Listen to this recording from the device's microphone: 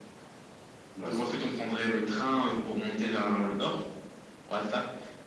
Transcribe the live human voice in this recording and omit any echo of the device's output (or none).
Ouais, c'est vrai.